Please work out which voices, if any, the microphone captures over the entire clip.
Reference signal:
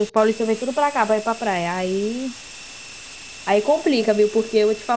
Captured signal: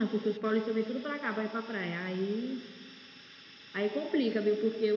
echo only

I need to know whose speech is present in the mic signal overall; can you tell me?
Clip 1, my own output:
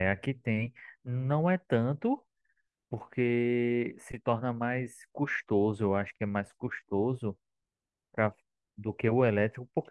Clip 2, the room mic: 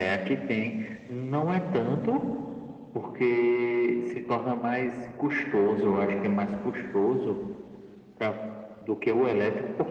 echo only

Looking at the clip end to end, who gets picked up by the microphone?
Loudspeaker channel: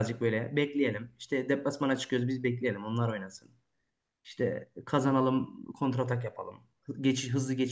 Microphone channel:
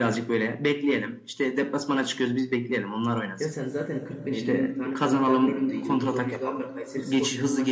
both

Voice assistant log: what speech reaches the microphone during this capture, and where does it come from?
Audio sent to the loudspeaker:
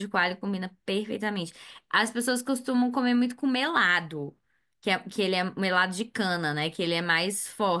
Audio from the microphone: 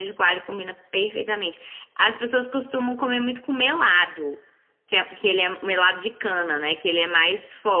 echo only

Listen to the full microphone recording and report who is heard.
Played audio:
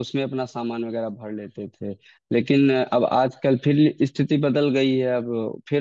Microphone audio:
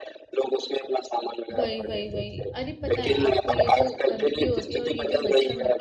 both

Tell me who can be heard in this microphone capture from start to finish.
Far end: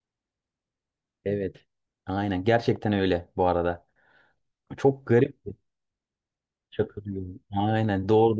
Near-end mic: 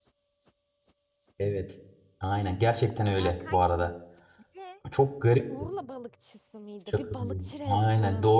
both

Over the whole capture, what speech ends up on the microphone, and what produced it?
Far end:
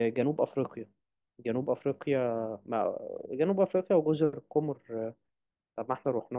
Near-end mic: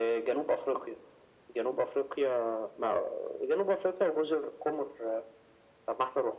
echo only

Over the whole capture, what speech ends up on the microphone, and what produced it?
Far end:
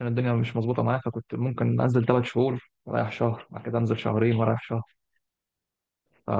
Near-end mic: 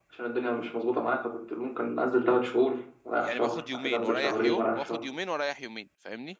both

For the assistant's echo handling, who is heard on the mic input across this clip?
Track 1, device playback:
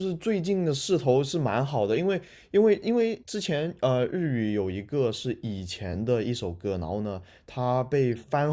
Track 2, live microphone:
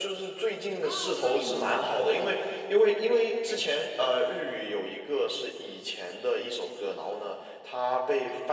both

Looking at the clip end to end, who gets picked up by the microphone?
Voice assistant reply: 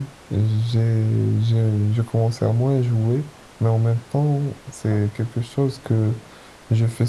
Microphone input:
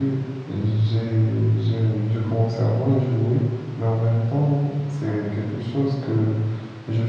echo only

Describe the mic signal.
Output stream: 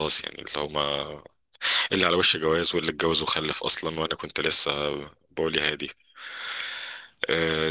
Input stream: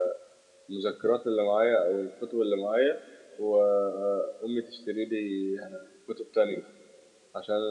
user only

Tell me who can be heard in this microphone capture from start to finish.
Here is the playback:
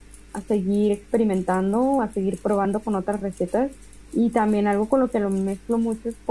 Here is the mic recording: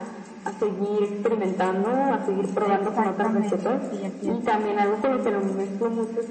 both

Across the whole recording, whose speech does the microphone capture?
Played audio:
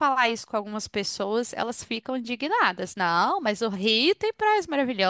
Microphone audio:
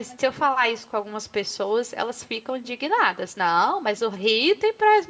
echo only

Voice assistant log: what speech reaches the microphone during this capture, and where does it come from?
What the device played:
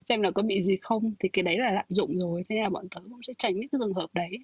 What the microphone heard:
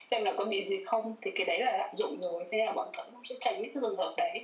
echo only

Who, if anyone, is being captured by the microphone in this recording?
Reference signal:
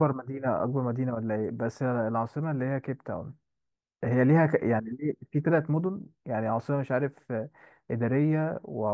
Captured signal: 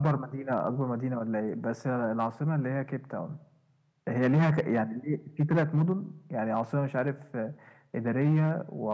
echo only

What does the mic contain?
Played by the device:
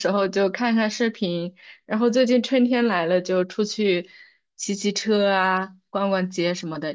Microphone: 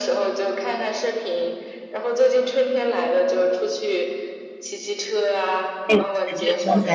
both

